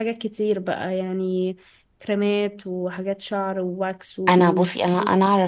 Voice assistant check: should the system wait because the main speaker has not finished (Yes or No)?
No